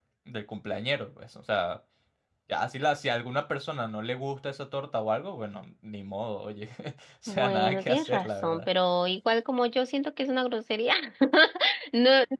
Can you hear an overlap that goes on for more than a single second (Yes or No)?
Yes